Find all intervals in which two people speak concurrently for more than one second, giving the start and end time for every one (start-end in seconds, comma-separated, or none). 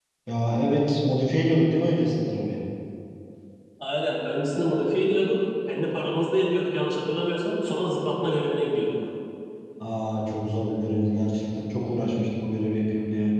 none